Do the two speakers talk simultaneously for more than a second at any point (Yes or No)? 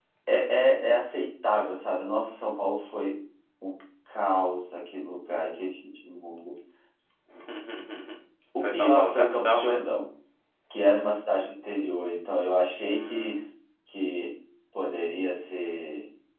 Yes